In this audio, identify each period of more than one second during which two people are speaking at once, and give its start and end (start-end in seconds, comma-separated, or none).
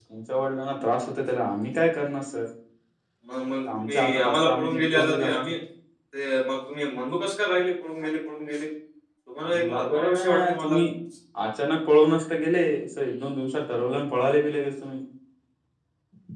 3.8-5.3, 9.5-10.8